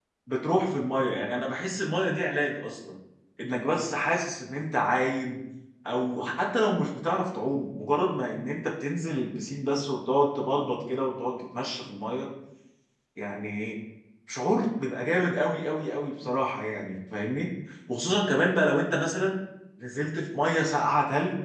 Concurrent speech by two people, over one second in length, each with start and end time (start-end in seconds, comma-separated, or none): none